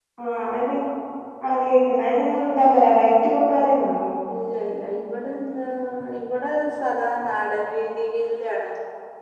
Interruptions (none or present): none